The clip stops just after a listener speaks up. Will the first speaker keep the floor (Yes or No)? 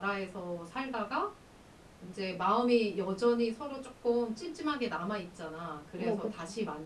Yes